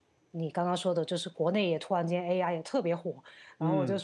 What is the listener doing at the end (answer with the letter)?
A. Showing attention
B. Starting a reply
A